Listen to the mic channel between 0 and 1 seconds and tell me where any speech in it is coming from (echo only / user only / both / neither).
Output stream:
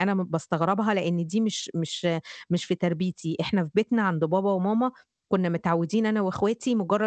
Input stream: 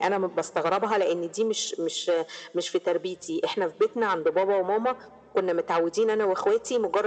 echo only